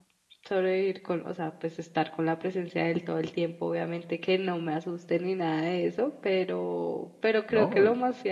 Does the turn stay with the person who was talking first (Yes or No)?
Yes